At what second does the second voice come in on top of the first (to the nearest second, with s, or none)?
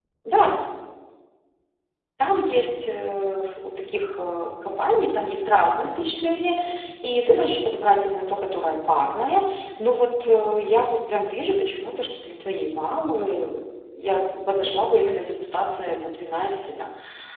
none